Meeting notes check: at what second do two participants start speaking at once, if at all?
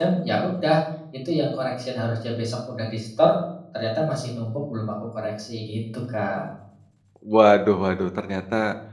none

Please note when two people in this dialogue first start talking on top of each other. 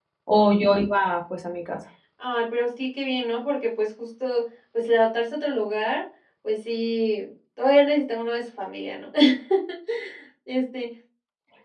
none

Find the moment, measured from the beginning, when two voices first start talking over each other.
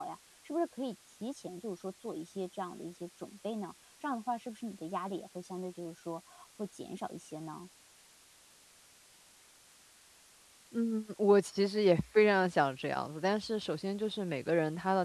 none

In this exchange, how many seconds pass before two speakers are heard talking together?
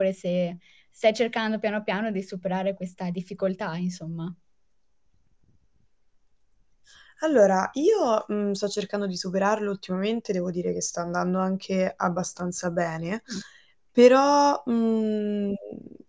none

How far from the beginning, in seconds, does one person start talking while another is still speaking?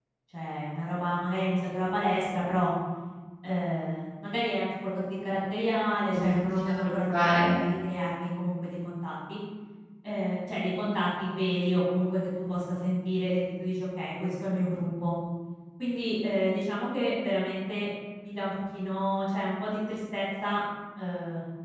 6 s

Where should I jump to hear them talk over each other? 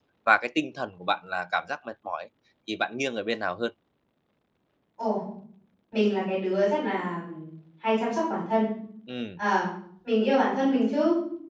none

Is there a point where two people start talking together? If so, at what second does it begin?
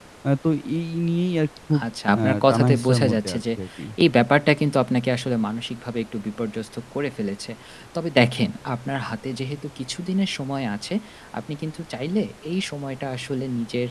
2 s

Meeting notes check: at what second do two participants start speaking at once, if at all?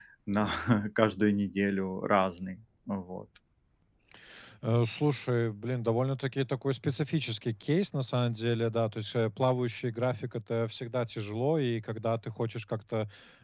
none

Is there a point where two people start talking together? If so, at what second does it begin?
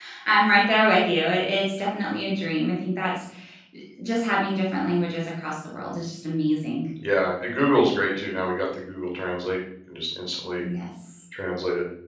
none

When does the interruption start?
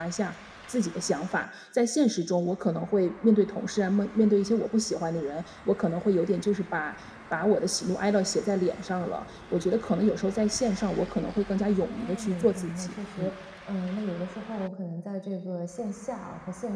12 s

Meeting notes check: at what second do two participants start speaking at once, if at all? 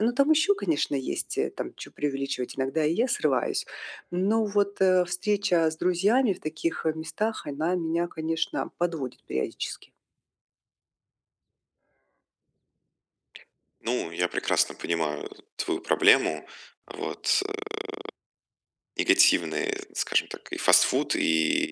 none

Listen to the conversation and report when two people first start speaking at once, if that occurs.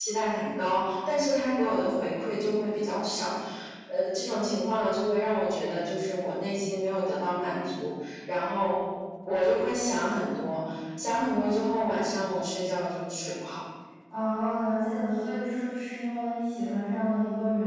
none

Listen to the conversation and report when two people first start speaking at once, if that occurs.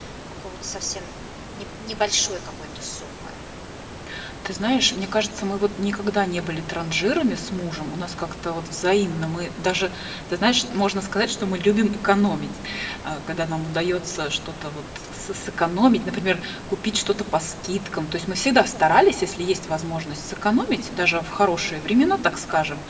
none

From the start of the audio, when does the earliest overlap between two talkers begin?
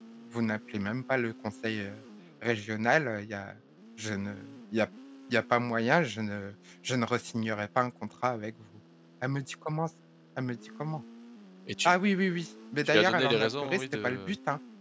13 s

